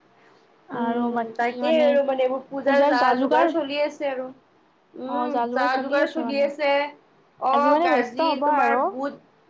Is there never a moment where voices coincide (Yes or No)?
No